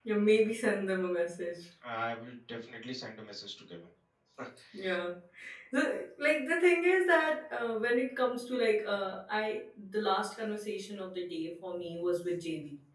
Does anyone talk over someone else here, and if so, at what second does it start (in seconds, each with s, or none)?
none